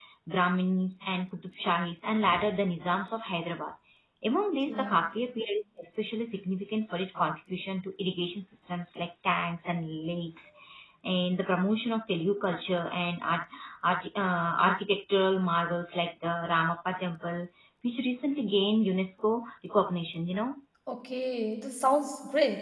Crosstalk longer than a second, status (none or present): none